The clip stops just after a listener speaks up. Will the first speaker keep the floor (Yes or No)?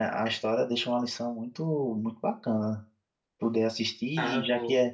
Yes